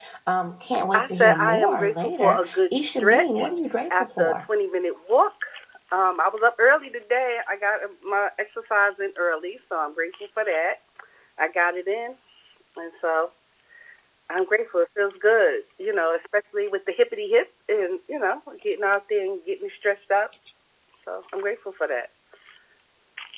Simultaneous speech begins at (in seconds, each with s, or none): 0.9 s